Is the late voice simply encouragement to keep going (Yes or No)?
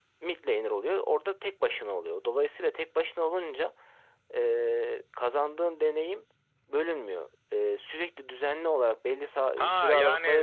No